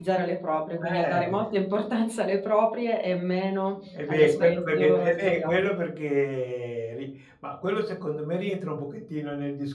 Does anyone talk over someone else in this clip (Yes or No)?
Yes